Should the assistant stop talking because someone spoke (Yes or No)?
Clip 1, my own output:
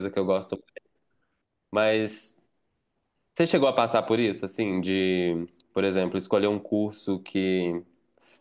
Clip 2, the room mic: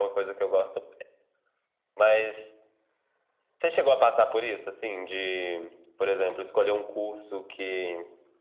No